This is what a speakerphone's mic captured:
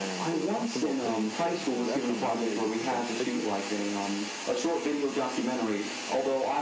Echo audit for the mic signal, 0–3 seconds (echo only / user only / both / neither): both